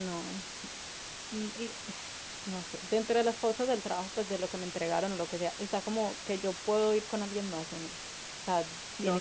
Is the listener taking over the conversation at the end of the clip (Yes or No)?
Yes